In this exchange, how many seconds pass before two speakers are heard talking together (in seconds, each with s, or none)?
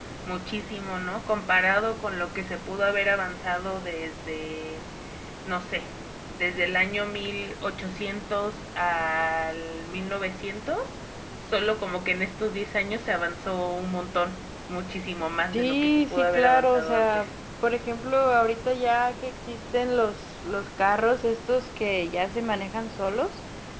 15.5 s